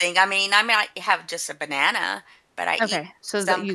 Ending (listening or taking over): taking over